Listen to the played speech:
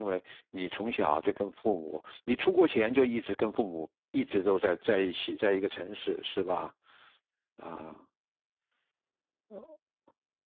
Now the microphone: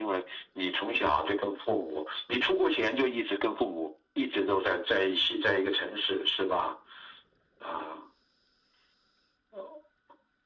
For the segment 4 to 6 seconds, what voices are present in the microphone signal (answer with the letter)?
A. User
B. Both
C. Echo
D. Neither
C